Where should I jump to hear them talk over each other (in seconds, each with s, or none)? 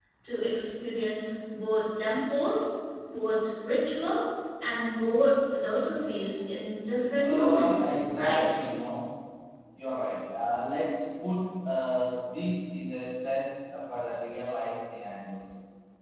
7.2 s